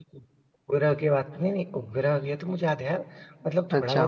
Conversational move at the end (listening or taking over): listening